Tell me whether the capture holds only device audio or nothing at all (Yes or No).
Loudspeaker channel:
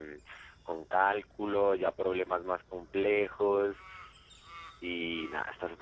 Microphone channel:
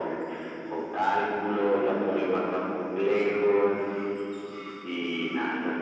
Yes